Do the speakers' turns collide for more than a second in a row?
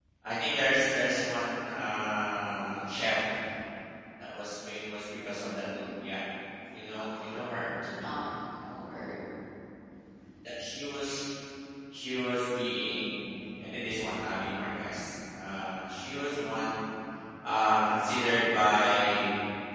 No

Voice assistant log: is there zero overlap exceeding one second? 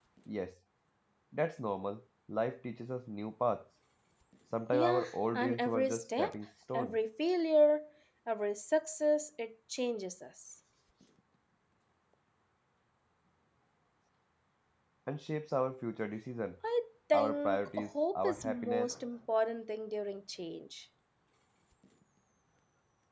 No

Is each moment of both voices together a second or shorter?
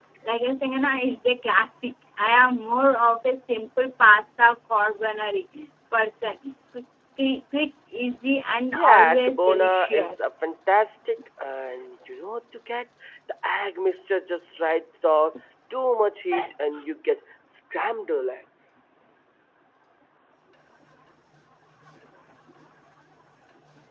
No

